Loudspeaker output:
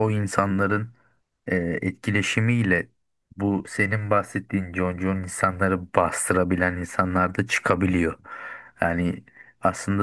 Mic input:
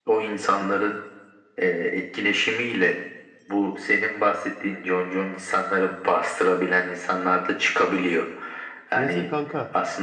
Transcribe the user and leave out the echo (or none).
neyse kanka.